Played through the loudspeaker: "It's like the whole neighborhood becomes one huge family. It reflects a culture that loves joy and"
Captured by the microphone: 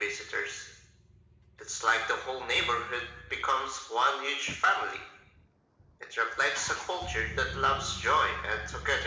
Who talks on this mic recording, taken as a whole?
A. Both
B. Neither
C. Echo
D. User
C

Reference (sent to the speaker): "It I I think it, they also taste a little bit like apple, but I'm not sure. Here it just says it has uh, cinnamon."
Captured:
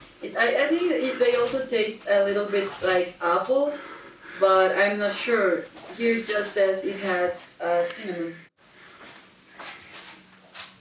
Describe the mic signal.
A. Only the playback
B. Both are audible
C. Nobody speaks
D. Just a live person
A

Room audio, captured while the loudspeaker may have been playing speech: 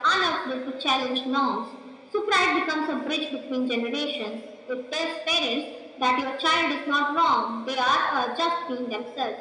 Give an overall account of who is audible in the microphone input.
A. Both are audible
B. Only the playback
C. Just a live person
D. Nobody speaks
B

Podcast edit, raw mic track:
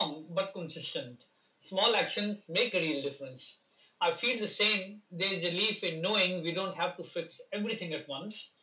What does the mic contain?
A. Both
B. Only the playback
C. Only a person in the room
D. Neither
B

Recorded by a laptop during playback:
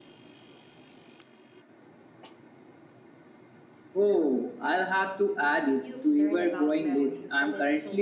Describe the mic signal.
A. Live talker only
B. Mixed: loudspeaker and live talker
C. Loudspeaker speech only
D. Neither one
B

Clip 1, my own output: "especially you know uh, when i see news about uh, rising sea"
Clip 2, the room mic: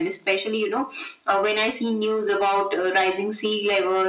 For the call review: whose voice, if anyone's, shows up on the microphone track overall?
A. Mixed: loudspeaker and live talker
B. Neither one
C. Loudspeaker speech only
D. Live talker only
C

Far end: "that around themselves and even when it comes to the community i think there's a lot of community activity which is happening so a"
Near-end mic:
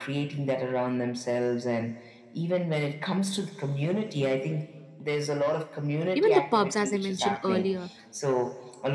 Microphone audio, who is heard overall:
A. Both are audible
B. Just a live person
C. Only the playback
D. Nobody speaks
A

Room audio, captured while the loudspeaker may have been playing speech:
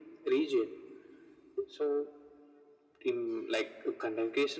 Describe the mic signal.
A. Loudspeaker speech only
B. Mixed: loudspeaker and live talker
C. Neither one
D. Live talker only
A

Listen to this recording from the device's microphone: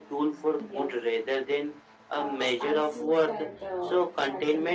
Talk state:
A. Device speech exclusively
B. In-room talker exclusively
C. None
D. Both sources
A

